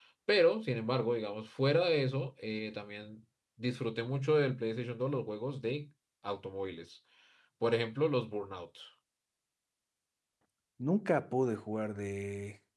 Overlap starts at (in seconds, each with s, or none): none